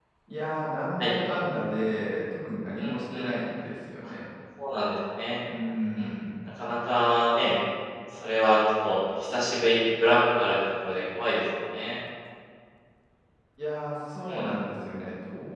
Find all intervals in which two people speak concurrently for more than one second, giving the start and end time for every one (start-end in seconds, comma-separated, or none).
none